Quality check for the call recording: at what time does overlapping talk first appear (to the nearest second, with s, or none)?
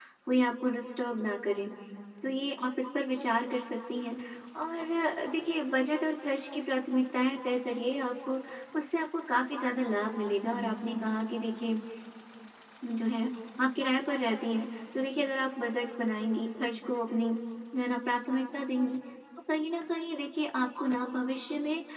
none